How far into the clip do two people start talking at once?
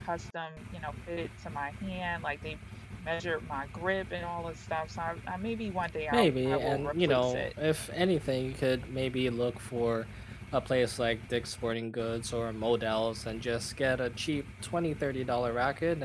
6.1 s

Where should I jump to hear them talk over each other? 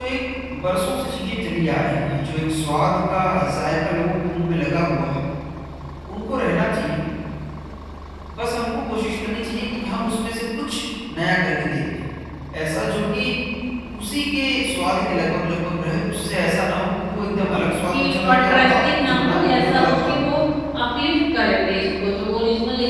17.1 s

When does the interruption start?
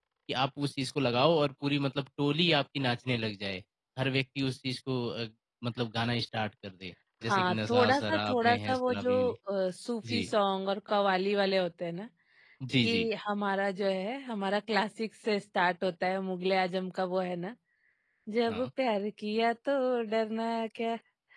7.3 s

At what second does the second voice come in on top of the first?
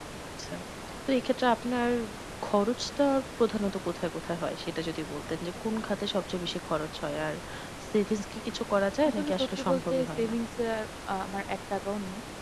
9.0 s

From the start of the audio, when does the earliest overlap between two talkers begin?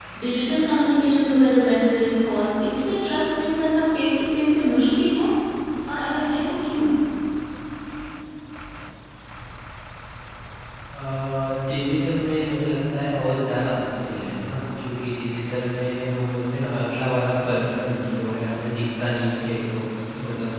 none

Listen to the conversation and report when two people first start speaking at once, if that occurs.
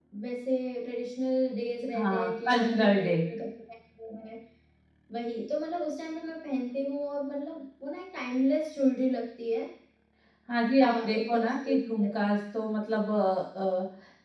1.9 s

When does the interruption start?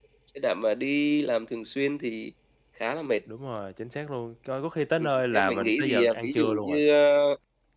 5.0 s

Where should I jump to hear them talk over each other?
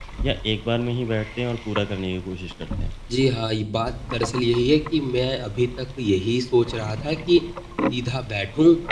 none

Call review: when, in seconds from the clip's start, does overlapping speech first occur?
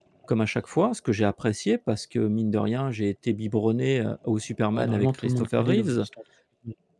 4.7 s

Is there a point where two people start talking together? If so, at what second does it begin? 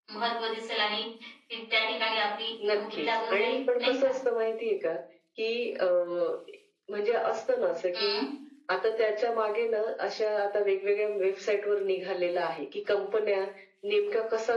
2.6 s

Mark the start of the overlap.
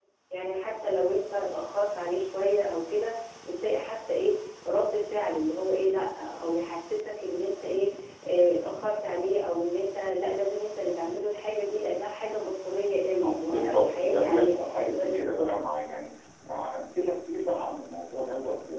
13.2 s

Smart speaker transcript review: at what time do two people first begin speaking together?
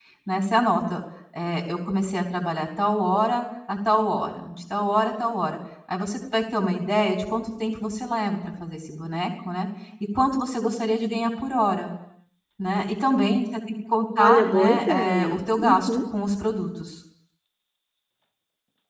14.2 s

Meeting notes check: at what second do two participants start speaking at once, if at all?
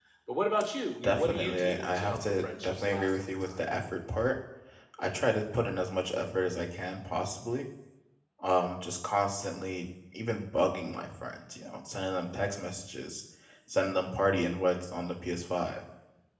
1.0 s

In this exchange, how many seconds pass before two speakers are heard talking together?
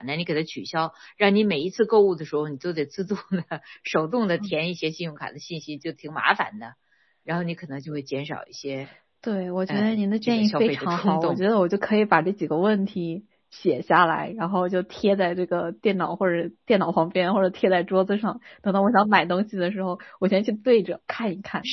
9.7 s

